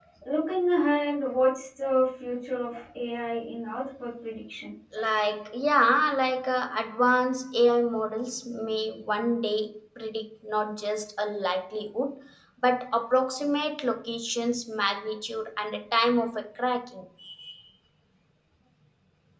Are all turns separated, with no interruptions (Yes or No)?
Yes